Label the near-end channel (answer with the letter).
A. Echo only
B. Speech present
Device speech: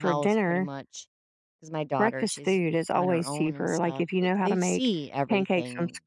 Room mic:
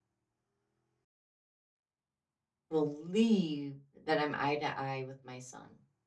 B